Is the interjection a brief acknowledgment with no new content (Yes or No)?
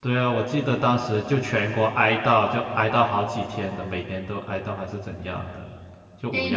No